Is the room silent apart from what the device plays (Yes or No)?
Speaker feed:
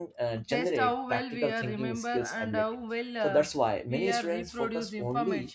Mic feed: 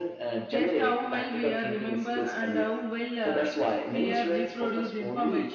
Yes